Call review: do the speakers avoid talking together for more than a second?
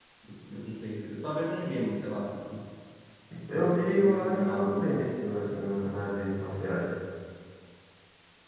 No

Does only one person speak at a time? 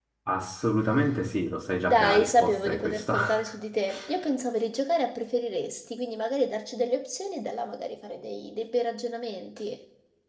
No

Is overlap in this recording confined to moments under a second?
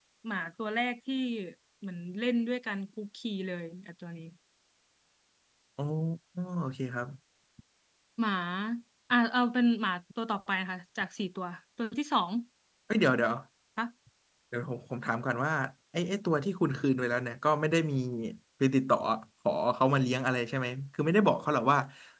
Yes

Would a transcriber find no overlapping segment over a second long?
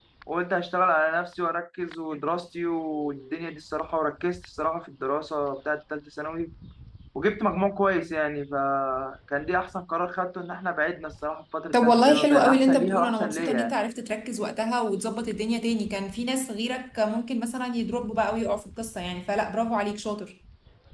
No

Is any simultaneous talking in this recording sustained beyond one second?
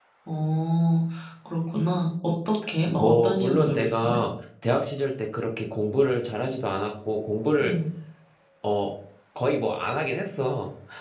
Yes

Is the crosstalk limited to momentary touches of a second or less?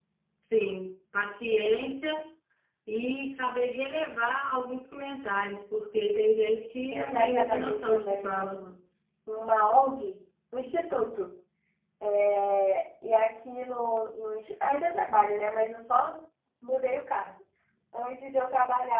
No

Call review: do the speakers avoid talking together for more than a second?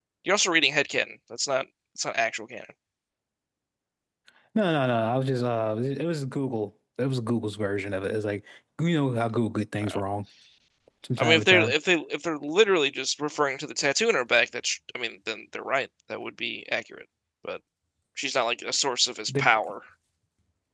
Yes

